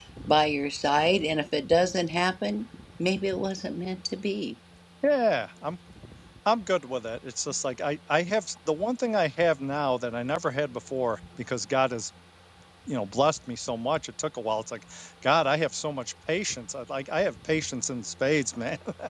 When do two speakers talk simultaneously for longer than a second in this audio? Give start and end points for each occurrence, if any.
none

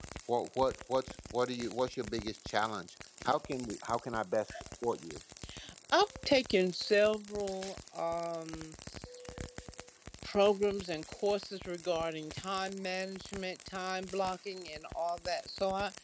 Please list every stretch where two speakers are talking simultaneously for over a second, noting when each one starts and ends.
none

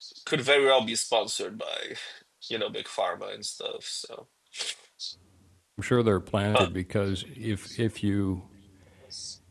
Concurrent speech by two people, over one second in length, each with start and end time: none

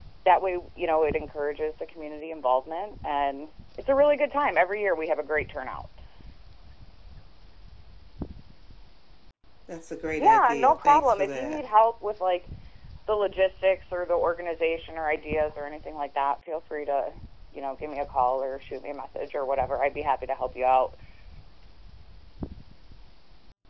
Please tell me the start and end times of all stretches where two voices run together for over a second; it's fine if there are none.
10.2-11.6

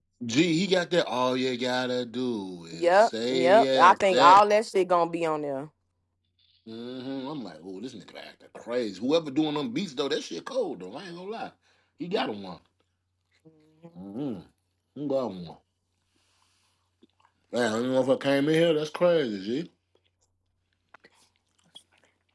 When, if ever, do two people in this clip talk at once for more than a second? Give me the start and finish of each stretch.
2.8-4.4

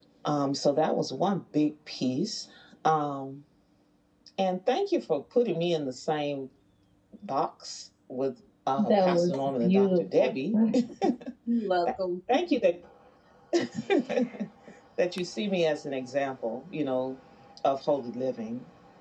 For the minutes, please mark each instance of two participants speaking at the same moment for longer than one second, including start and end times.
8.8-10.3

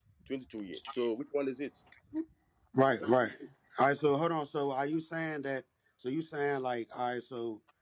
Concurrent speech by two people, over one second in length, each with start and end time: none

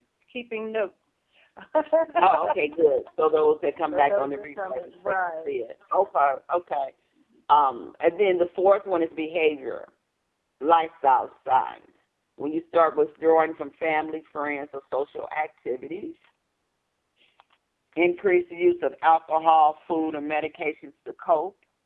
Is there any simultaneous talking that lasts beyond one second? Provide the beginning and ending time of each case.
4.1-5.6

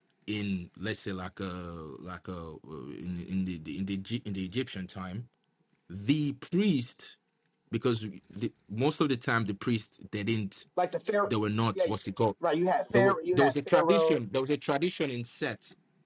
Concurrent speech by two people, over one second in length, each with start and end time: 12.9-14.2

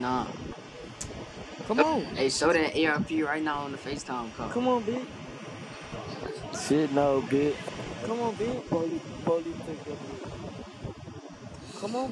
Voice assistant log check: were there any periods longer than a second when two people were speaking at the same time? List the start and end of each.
none

